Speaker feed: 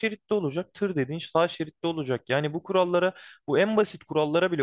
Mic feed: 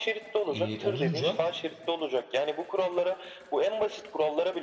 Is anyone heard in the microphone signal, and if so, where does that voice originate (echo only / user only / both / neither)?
both